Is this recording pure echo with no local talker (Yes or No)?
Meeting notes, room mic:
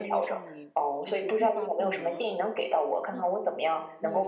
No